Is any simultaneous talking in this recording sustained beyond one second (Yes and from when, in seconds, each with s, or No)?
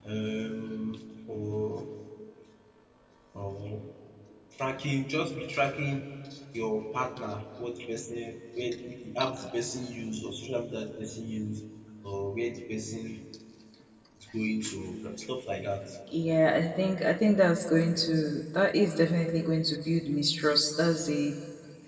No